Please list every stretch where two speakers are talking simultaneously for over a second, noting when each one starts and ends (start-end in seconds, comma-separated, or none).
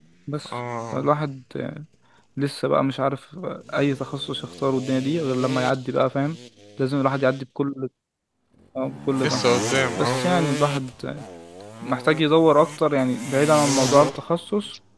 none